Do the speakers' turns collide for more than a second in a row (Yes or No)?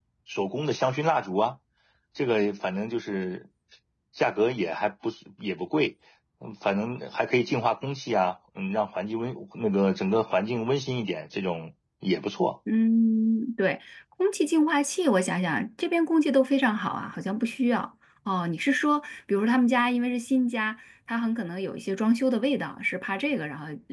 No